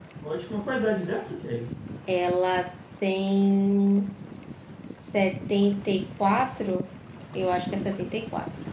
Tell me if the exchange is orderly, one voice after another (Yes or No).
Yes